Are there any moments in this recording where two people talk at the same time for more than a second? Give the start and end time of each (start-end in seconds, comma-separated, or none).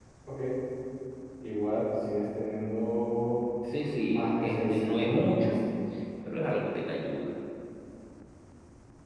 4.0-5.5